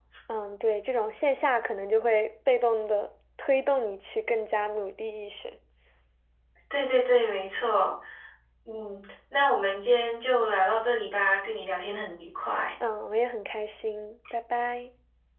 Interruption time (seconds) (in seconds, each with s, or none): none